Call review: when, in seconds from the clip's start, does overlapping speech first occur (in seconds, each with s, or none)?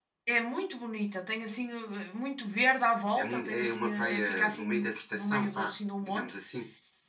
3.2 s